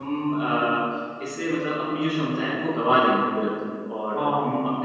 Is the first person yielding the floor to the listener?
No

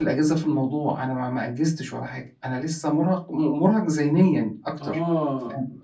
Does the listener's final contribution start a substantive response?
Yes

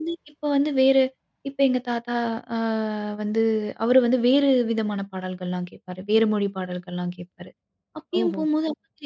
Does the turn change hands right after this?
No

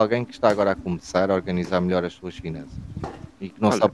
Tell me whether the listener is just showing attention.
No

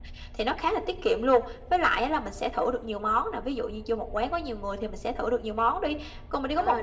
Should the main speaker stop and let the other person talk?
No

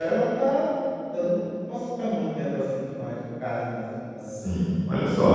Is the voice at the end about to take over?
Yes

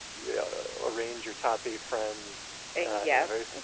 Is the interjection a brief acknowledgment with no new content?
Yes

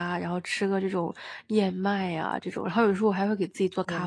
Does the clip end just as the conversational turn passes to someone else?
Yes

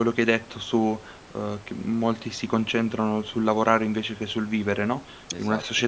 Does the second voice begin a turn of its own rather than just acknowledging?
No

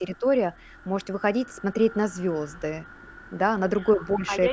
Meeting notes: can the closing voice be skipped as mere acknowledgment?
No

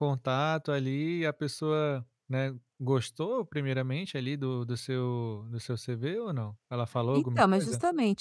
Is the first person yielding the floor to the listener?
Yes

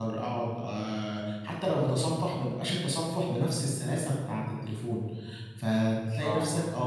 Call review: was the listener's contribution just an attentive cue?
Yes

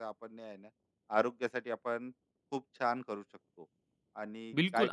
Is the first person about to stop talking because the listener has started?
Yes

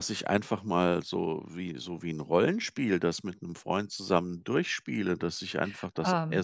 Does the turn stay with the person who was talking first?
Yes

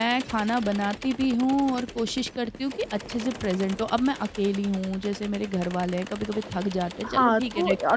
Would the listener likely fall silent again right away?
No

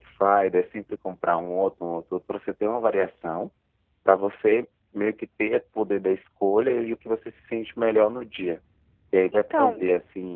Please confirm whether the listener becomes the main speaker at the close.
No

